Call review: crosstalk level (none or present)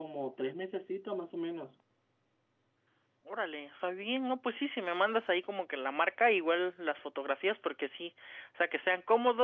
none